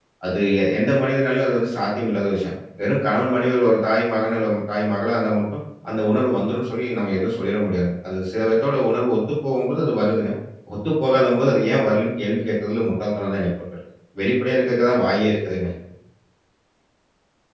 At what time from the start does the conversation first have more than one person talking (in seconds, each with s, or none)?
none